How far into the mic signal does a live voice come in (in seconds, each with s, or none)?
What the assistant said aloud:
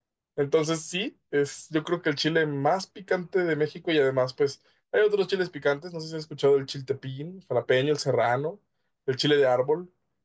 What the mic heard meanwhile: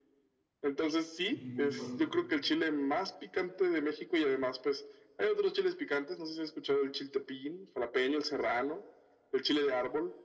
1.3 s